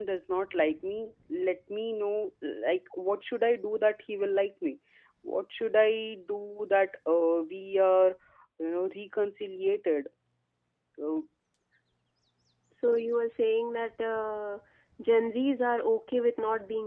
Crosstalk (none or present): none